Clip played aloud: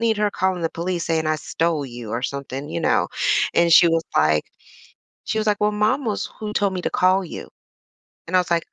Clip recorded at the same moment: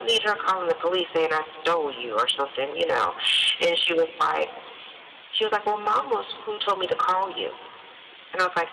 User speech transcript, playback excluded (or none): none